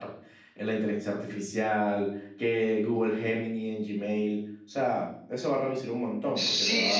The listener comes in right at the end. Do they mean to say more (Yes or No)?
Yes